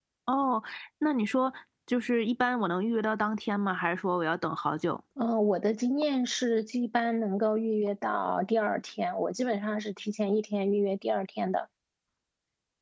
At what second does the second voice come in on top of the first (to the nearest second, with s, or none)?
none